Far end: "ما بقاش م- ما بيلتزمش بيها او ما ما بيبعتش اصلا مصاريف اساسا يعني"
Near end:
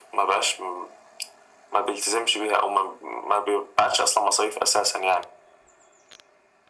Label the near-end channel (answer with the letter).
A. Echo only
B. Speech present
A